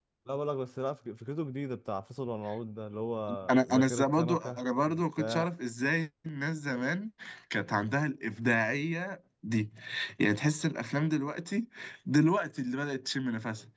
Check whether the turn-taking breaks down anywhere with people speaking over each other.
Yes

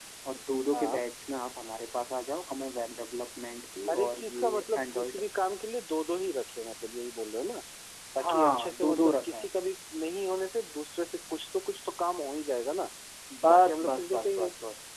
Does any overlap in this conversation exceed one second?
Yes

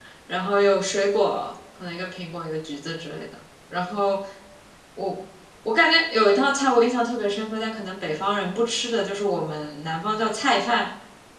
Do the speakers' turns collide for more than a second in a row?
No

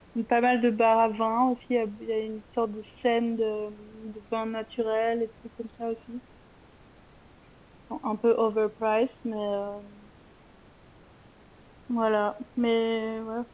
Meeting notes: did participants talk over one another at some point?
No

